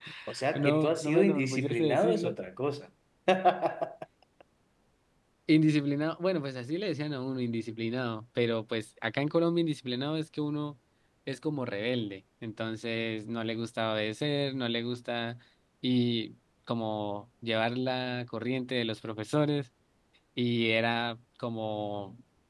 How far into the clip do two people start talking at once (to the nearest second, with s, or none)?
1 s